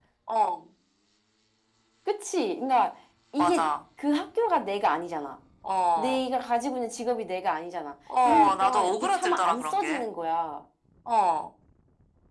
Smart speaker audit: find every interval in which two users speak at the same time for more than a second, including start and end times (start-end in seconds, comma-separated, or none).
8.2-10.0